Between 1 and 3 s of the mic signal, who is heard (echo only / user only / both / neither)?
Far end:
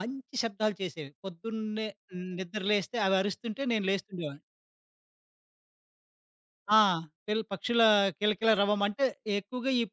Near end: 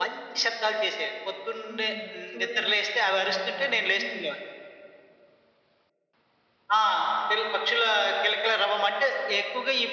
both